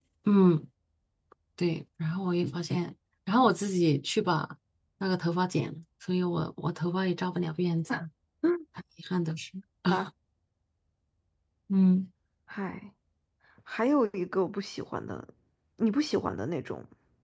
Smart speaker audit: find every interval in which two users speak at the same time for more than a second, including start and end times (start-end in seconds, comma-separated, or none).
none